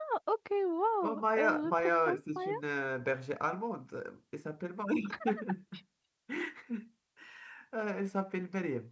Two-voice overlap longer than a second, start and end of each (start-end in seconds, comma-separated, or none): 1.0-2.5